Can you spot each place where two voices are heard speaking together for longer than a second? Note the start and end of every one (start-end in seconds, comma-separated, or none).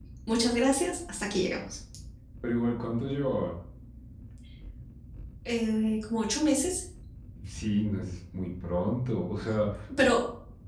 none